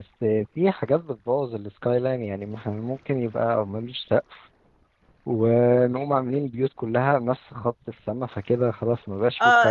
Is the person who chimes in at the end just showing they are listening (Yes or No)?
No